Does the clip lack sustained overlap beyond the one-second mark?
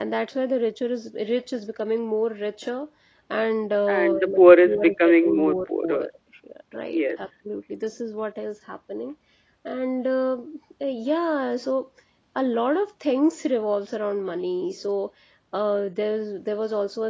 No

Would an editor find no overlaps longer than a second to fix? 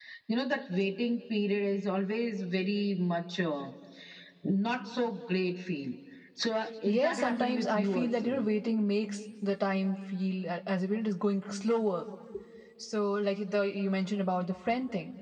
No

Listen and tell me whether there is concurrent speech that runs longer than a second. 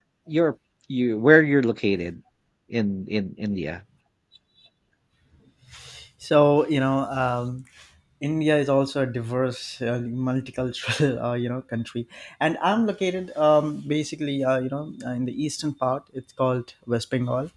No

